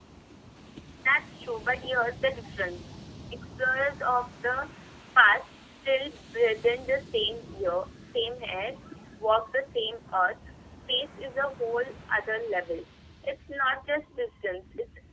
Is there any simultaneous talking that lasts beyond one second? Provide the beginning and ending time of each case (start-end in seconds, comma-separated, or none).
none